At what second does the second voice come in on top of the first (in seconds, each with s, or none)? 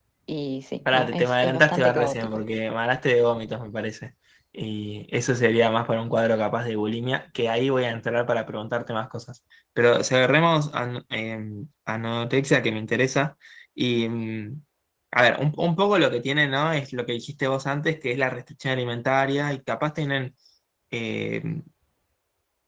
0.9 s